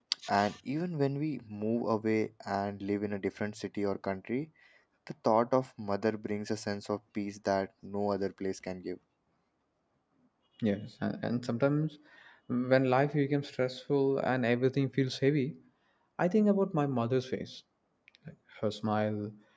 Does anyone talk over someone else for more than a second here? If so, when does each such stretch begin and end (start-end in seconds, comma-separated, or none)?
none